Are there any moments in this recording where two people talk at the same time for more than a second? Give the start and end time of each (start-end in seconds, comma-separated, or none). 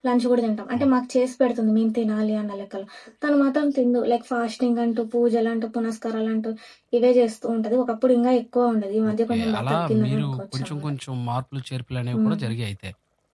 9.1-10.9